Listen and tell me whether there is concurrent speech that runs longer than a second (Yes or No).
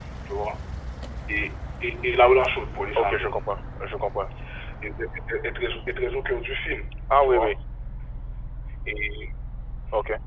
No